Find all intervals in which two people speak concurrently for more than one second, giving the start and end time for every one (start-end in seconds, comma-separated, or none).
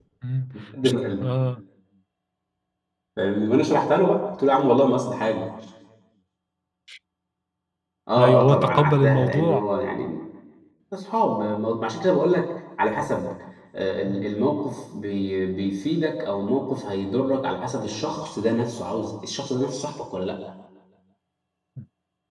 8.2-9.6